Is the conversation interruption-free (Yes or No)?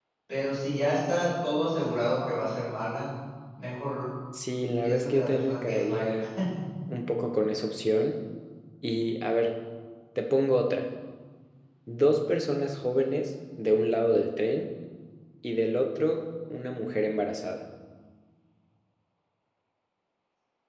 No